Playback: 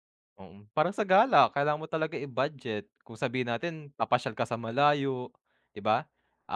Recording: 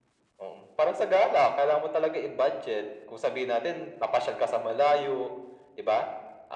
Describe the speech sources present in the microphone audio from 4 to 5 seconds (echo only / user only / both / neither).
echo only